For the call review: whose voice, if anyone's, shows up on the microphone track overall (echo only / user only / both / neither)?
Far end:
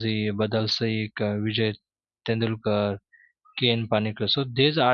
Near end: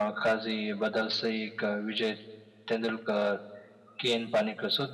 echo only